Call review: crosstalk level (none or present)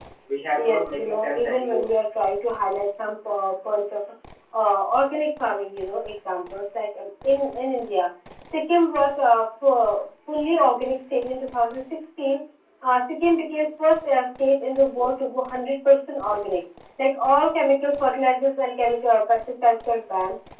present